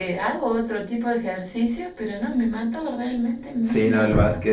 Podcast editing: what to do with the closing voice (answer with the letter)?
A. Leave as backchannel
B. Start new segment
B